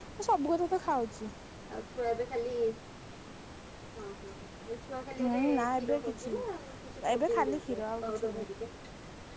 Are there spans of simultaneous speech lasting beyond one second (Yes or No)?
Yes